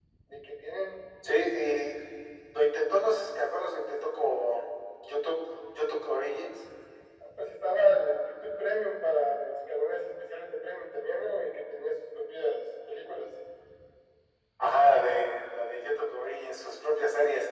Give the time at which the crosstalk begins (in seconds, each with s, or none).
none